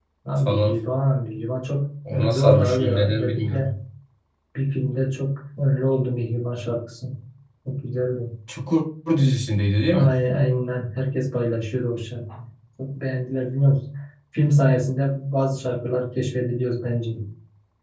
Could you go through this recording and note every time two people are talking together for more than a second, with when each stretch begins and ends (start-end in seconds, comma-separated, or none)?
2.1-3.7